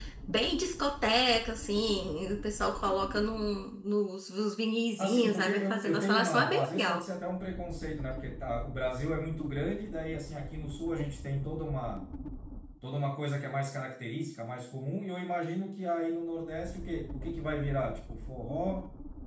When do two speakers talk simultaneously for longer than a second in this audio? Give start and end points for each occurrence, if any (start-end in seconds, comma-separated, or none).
5.0-7.0